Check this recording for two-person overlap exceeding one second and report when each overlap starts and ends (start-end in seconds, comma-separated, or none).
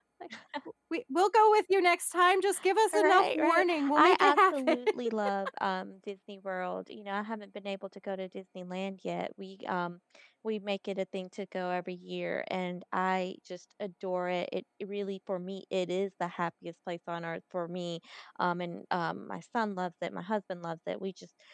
2.9-4.8